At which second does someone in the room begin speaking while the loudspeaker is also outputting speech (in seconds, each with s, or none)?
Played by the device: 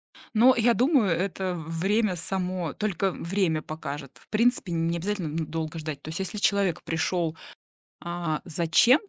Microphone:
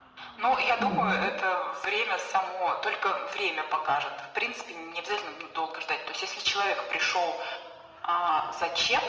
0.8 s